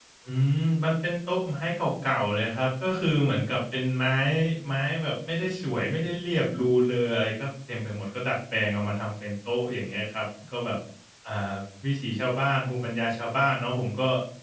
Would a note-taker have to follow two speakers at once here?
No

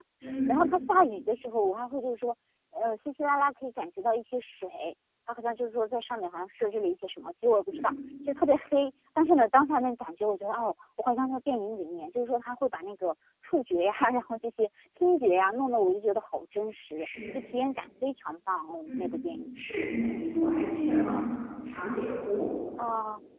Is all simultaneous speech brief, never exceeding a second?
Yes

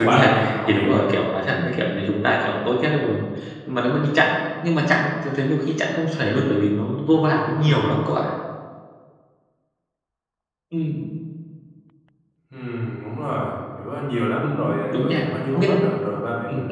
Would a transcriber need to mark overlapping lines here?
Yes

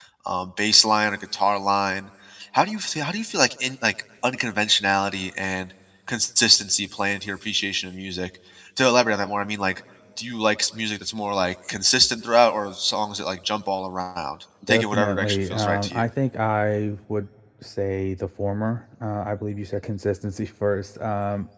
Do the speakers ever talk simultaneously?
Yes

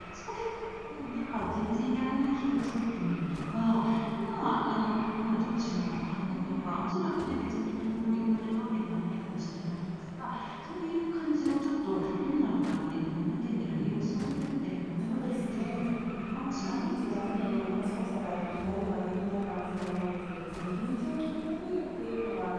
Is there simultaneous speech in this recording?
Yes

